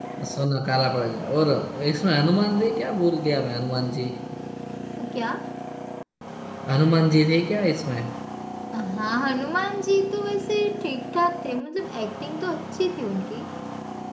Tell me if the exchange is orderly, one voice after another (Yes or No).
Yes